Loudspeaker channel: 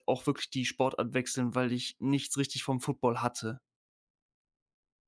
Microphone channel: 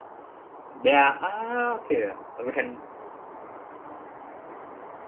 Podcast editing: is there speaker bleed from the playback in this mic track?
No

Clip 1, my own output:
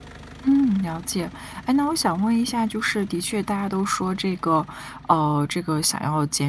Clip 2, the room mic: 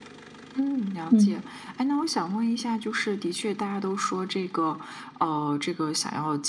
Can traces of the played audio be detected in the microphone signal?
Yes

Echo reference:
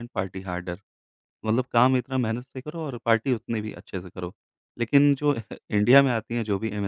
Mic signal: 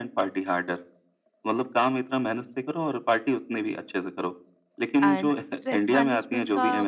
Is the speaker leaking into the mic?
Yes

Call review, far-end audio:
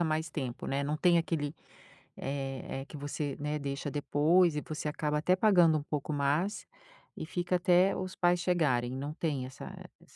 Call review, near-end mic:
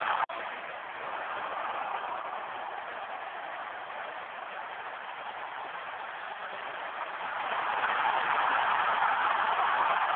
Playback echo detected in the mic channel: No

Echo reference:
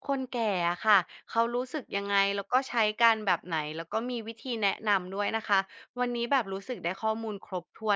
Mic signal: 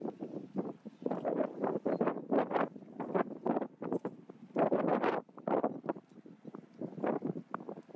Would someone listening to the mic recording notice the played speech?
No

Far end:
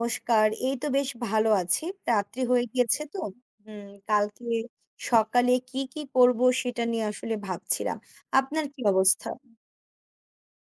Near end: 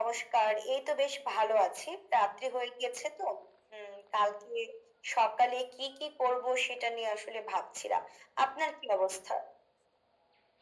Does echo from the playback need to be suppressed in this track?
Yes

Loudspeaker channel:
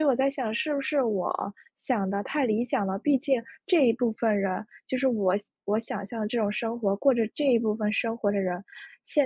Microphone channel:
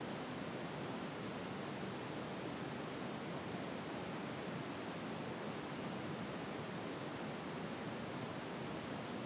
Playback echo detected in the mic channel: No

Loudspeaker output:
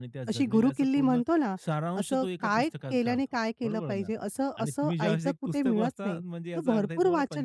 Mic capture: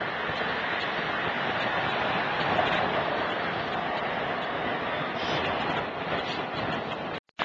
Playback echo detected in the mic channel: No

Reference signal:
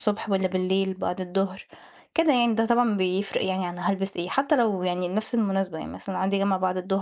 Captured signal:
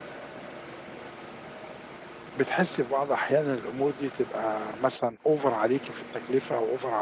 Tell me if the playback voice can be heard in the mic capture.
No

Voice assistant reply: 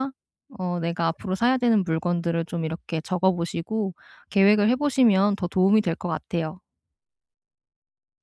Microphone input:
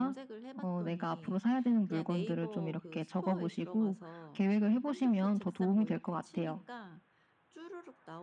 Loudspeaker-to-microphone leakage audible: Yes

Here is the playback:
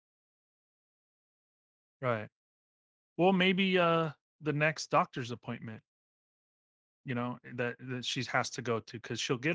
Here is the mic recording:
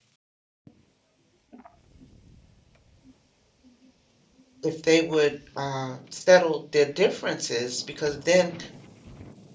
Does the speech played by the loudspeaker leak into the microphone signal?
No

